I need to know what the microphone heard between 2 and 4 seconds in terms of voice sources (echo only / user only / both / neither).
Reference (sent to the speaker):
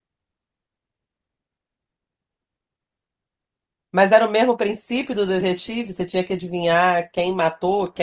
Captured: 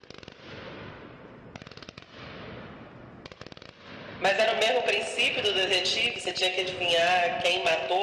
neither